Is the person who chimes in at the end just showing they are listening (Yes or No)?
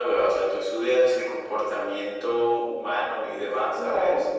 No